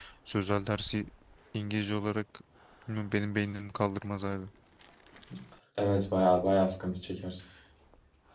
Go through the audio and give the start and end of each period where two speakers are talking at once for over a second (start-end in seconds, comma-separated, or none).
none